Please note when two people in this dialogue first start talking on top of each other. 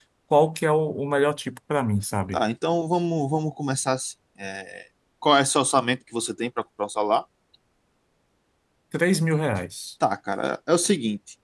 none

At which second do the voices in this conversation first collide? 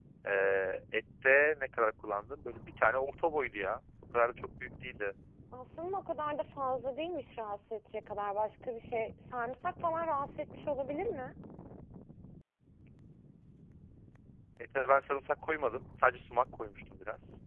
none

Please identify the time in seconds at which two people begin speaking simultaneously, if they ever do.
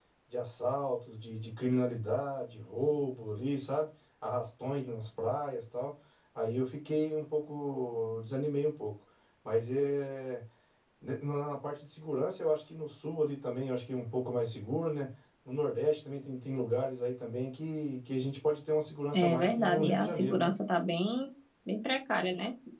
19 s

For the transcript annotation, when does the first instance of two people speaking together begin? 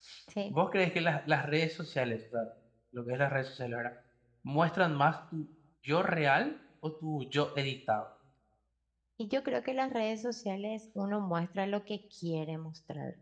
none

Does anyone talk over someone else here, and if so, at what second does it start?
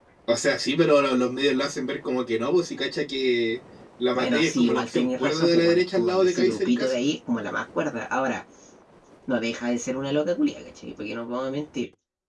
4 s

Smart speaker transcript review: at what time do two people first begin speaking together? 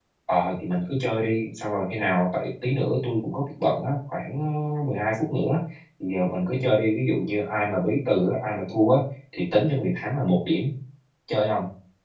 none

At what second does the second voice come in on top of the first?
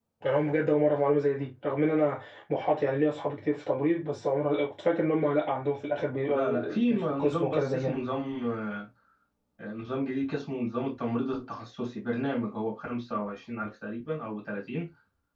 6 s

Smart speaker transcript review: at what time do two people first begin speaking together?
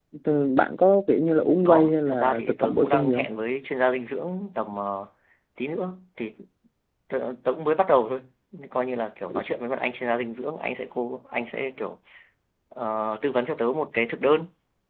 2 s

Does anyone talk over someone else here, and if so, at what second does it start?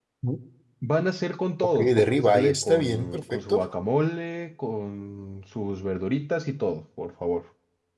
2 s

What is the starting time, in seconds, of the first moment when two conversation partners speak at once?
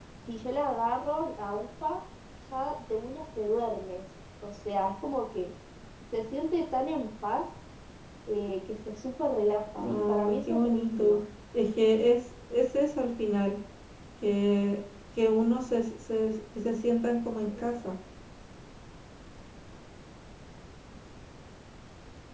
10 s

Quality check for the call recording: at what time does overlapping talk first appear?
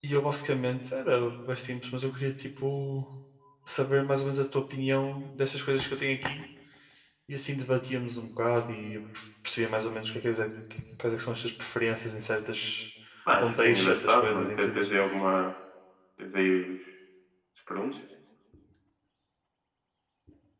13 s

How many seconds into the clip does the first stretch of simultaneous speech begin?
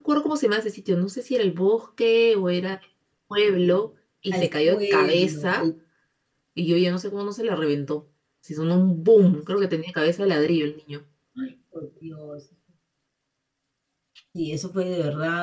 4 s

